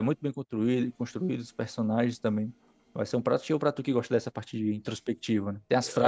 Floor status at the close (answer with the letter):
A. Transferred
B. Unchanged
A